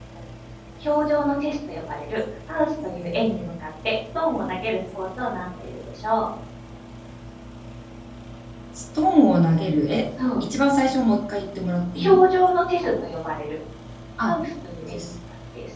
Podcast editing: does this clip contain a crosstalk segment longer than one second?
No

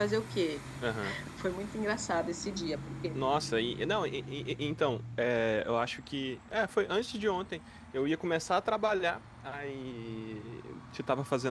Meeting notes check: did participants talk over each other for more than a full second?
No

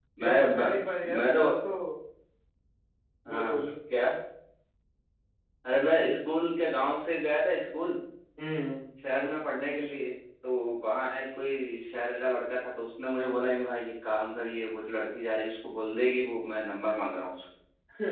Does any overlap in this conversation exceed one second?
Yes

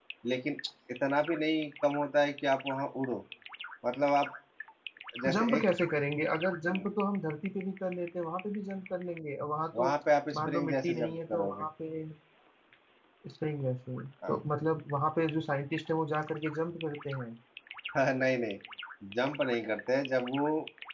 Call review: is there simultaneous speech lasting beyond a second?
Yes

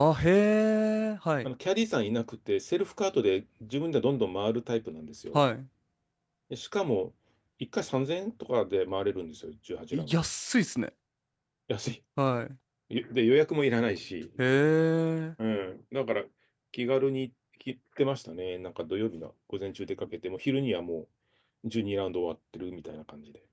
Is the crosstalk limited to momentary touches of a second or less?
Yes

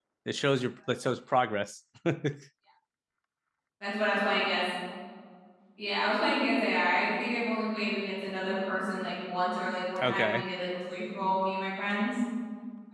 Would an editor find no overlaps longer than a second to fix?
Yes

